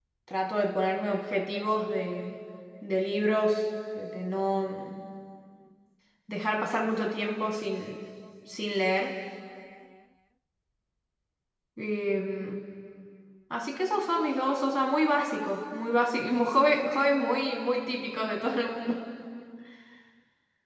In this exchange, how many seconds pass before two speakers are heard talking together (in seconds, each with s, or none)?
none